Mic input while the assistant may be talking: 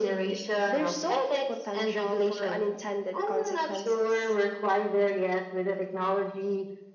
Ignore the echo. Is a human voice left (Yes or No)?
No